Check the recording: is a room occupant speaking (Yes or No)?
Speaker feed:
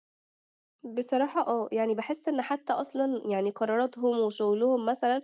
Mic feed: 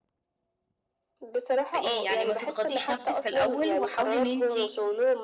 Yes